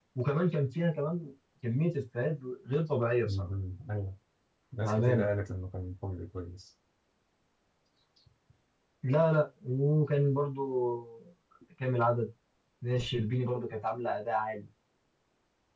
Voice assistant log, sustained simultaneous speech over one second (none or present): none